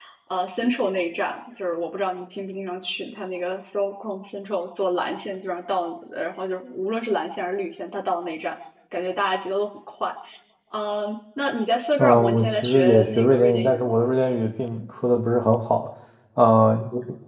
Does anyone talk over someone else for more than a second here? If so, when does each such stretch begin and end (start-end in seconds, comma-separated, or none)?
12.0-14.0